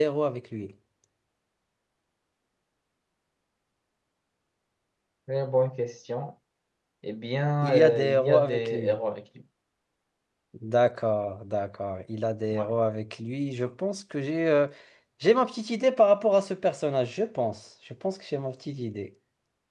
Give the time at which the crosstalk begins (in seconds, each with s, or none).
7.6 s